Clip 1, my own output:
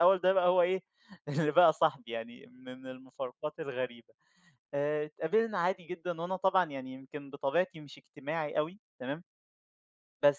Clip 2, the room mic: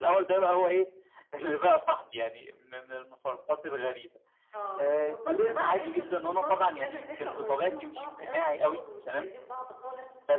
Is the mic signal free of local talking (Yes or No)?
No